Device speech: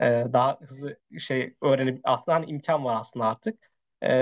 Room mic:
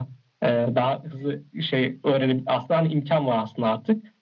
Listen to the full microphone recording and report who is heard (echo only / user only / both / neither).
echo only